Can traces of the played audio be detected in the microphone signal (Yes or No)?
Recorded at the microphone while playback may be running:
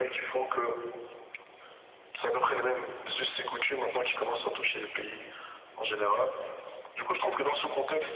Yes